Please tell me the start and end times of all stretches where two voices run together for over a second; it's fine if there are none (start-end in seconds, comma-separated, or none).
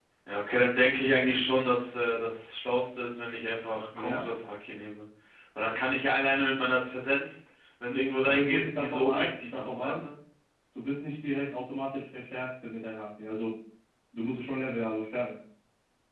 8.3-10.1